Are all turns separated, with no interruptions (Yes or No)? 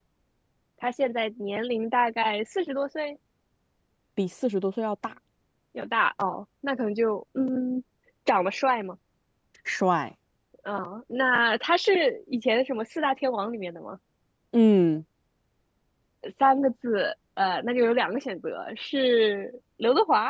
Yes